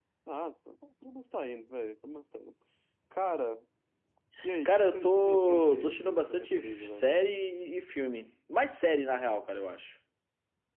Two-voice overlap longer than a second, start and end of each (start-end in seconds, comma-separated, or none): 4.6-7.0